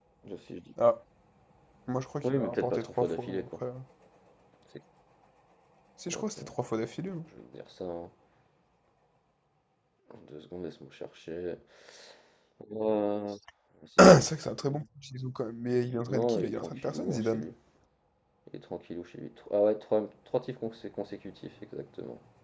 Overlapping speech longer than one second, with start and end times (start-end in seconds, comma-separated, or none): 2.2-3.5, 16.1-17.4